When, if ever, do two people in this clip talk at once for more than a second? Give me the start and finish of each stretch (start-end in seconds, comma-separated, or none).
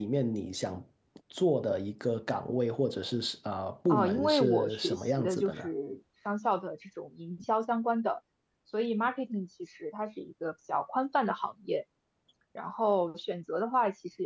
3.9-5.6